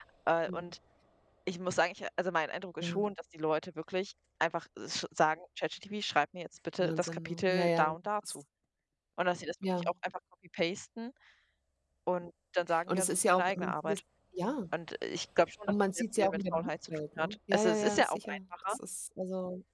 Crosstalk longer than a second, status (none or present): present